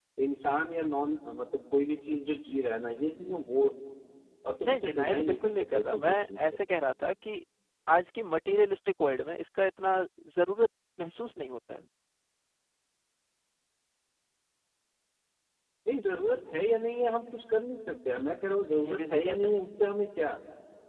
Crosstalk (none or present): present